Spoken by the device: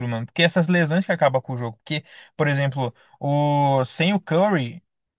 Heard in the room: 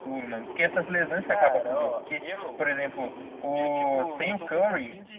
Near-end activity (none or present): present